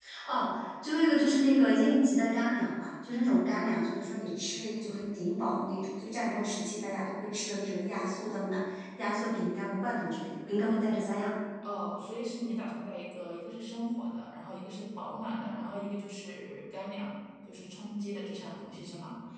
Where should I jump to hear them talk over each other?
none

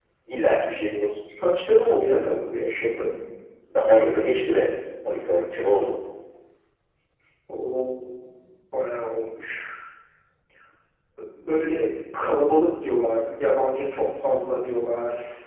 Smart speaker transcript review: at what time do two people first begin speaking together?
none

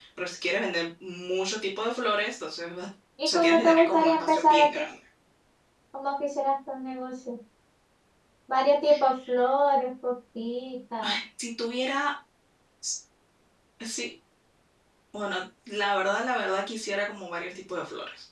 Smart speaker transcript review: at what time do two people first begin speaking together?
3.2 s

